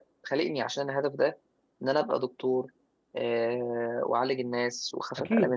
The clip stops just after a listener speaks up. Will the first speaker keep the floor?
Yes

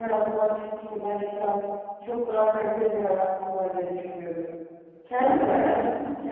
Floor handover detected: No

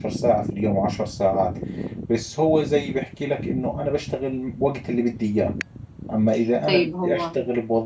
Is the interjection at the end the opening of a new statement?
No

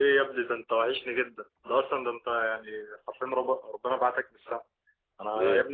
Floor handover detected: No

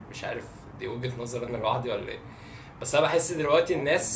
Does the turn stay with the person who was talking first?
Yes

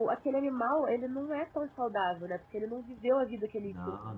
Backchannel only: Yes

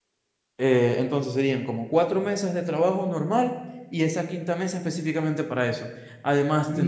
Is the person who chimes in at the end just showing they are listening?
No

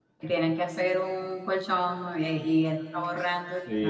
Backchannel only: No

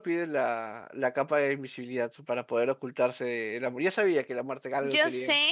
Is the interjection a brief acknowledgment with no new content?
No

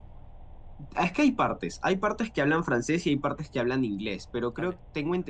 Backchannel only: Yes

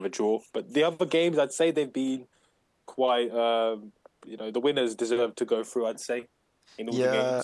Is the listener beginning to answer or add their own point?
Yes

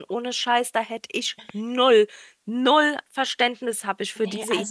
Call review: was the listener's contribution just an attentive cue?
No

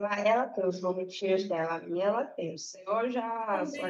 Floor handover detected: Yes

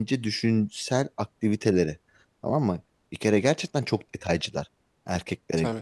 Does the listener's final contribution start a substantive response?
No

